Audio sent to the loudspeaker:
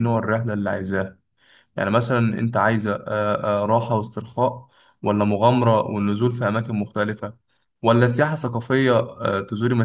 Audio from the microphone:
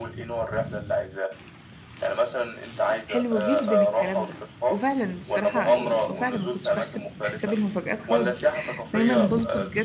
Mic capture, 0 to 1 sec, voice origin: echo only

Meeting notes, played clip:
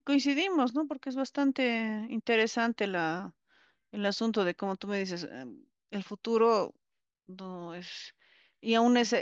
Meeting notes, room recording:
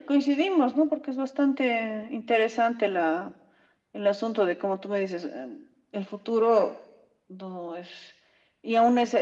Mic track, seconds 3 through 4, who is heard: echo only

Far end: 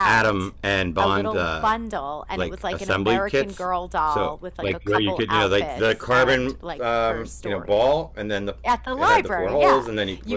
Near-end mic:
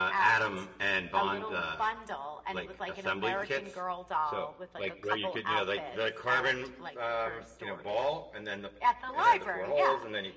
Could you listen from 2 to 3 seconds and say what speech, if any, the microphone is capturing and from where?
echo only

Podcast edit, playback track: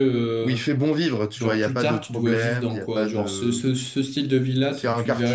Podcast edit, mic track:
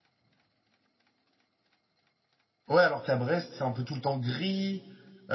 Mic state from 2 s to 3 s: user only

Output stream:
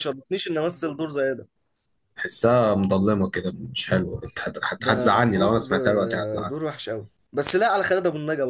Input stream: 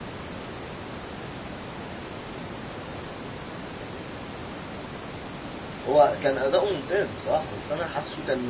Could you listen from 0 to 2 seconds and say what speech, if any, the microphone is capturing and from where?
neither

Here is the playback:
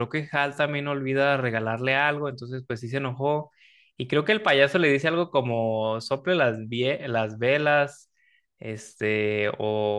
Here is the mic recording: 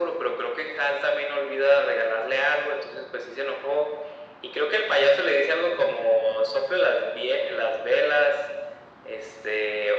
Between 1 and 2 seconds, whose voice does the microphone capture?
echo only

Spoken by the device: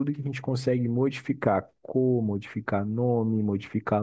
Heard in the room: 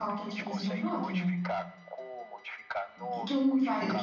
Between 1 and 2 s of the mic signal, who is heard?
both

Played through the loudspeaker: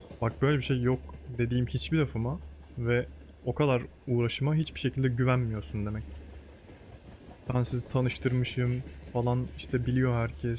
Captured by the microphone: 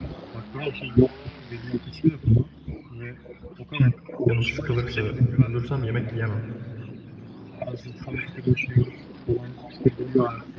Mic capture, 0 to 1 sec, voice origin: echo only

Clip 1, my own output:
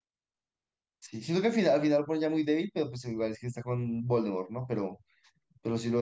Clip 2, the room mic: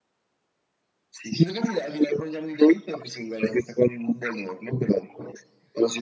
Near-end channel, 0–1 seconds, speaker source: neither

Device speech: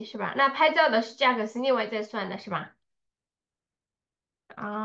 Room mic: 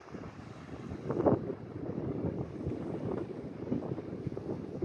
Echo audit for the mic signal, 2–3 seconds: neither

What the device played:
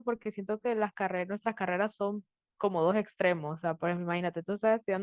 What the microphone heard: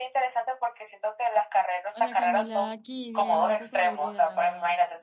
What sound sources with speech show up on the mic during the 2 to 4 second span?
both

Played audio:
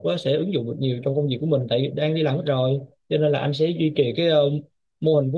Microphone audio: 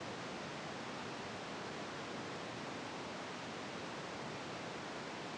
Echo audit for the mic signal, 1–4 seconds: neither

